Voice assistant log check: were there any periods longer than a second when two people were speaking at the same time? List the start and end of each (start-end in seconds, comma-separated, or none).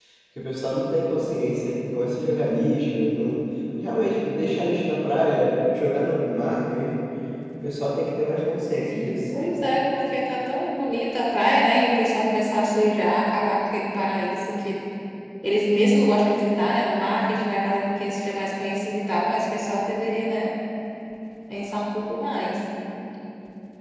none